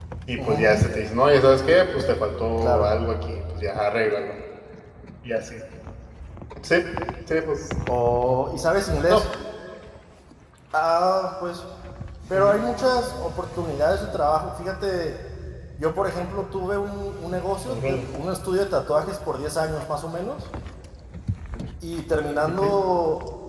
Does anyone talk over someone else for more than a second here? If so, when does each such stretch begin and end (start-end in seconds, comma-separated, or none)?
none